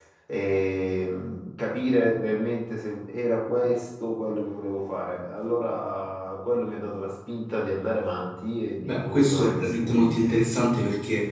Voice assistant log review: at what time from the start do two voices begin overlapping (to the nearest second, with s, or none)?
9 s